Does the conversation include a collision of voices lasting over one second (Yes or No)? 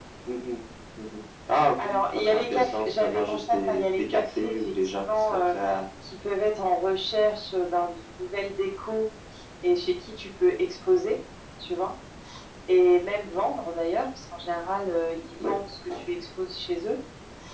Yes